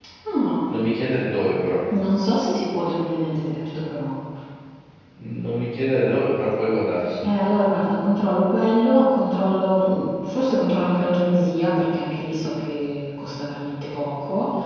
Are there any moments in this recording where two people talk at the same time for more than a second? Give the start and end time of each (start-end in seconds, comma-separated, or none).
none